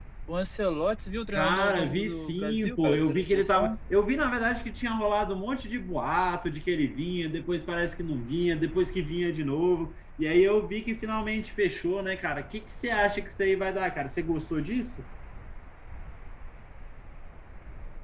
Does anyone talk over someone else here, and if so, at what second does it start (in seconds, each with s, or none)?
1.3 s